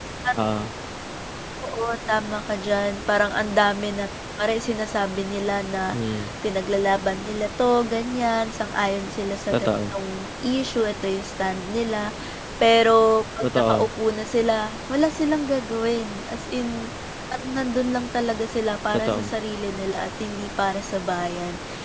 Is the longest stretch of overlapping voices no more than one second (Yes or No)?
Yes